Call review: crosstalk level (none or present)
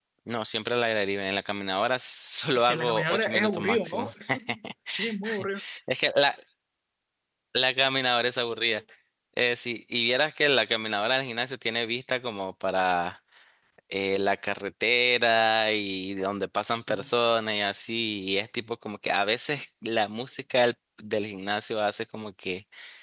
present